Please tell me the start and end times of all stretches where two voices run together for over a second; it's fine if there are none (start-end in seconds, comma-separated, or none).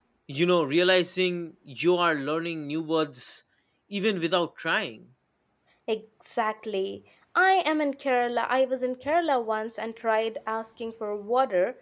none